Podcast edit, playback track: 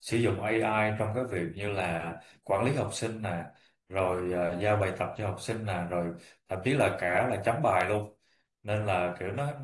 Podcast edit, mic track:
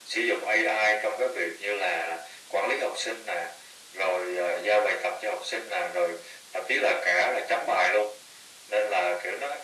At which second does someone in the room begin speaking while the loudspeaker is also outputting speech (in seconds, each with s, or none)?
none